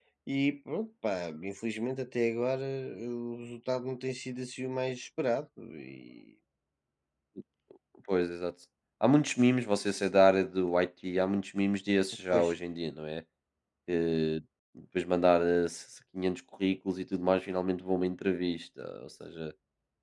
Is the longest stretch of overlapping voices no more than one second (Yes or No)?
Yes